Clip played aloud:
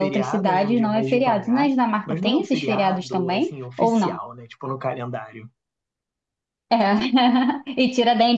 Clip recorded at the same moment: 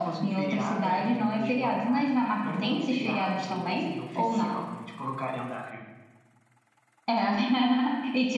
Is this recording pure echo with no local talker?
Yes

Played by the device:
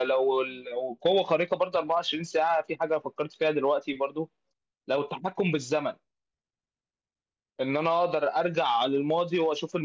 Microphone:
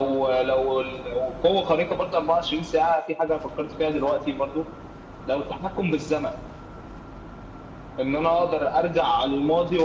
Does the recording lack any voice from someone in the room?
Yes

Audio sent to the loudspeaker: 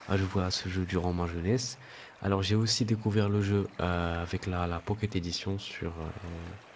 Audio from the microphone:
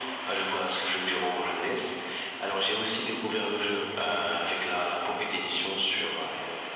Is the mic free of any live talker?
Yes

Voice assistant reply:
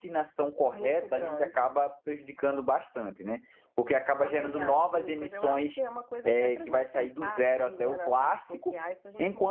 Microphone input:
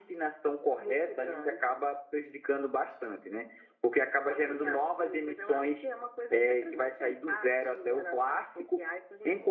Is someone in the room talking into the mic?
No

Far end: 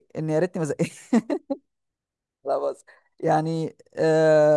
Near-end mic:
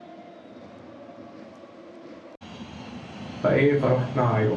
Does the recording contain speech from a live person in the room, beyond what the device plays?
Yes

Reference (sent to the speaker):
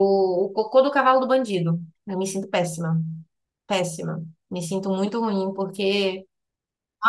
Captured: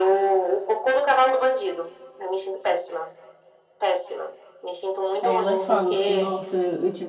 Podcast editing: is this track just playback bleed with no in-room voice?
No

